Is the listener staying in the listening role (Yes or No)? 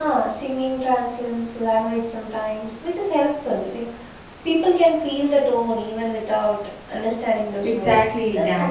No